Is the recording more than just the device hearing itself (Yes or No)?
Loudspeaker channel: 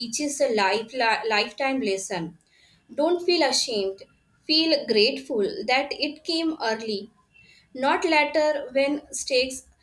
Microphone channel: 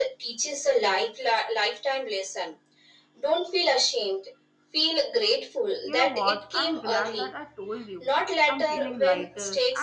Yes